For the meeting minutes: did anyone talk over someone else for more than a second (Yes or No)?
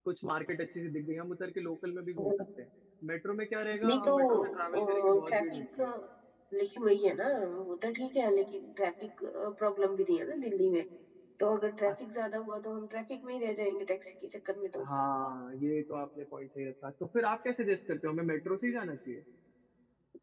Yes